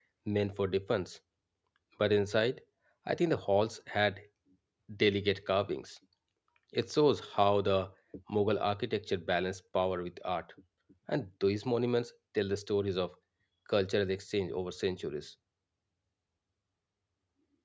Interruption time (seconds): none

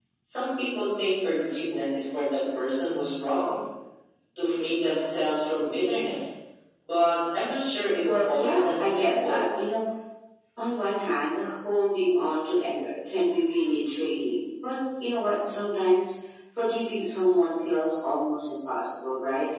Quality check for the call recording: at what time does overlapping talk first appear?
8.1 s

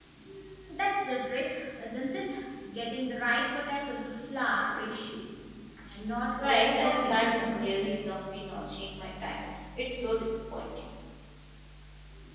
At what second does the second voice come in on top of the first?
6.3 s

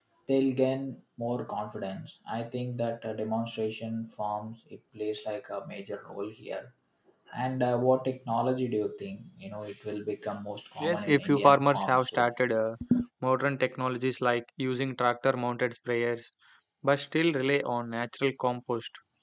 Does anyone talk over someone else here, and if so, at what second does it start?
10.8 s

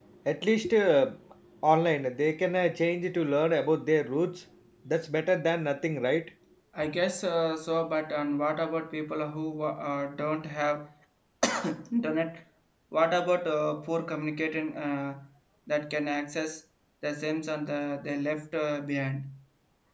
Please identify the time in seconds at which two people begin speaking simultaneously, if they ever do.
none

